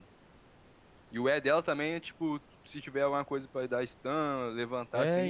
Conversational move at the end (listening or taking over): taking over